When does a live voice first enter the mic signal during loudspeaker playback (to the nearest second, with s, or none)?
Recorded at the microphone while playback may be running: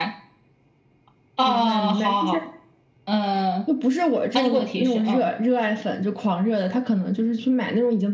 none